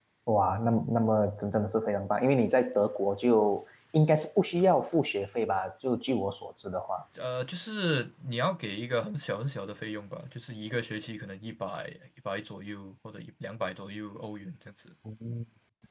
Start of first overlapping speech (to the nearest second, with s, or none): none